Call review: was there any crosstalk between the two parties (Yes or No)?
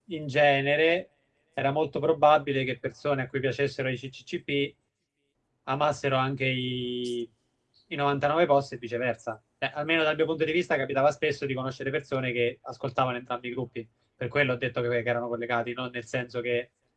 No